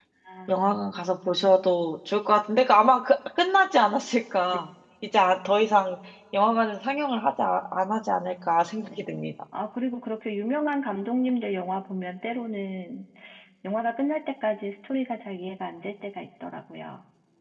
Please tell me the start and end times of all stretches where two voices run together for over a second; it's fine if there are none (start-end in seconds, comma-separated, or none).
none